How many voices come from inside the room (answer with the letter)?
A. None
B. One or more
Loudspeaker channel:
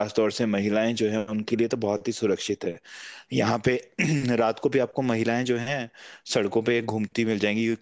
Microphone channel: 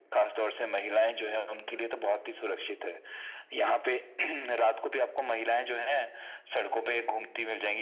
A